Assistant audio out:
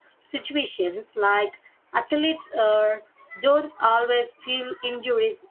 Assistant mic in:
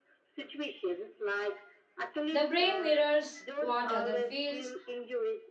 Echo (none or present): present